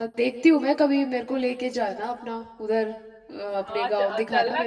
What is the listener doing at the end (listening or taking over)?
taking over